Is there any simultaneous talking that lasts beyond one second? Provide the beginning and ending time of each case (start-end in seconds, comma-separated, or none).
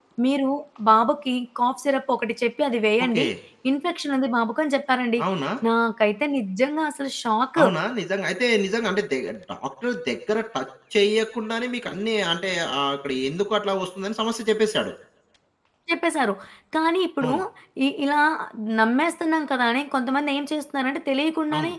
none